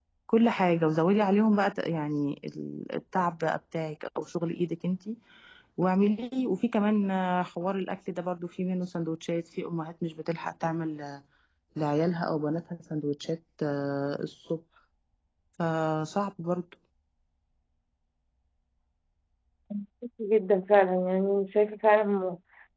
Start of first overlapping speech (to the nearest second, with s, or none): none